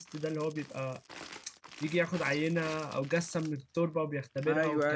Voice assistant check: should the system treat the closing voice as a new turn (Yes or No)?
Yes